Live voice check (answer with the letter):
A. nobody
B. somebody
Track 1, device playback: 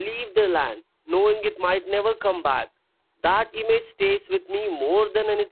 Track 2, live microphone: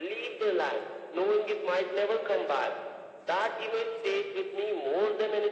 A